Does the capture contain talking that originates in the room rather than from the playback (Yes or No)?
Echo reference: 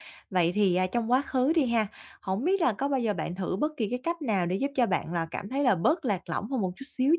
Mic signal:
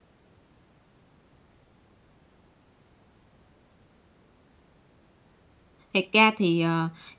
Yes